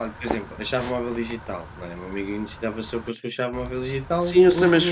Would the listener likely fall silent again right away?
No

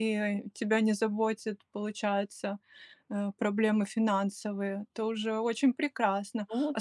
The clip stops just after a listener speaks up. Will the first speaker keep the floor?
Yes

